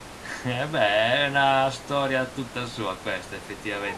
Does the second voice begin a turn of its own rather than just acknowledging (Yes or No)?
Yes